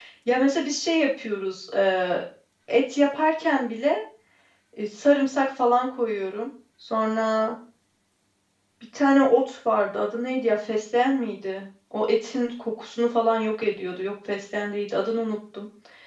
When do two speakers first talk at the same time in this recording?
none

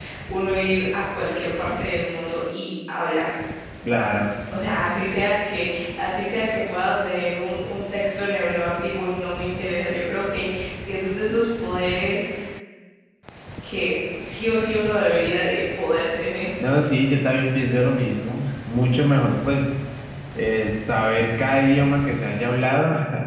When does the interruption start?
none

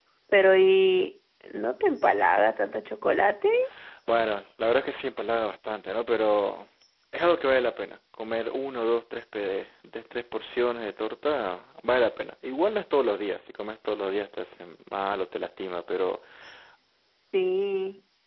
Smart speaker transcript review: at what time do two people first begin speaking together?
none

